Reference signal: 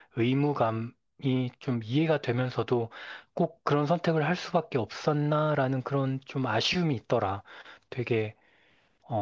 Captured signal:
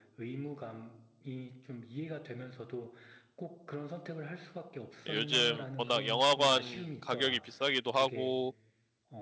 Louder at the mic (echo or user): user